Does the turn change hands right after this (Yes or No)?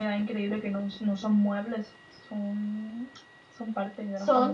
Yes